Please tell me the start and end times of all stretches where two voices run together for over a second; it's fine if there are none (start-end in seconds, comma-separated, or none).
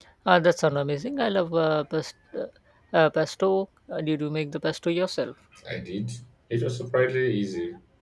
none